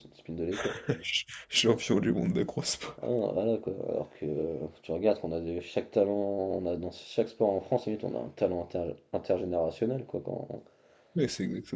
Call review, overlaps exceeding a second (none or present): none